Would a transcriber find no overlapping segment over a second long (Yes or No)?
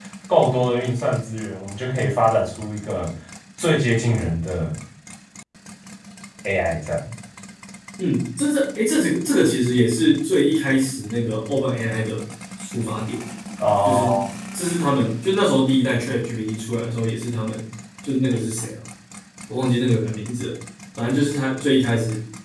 Yes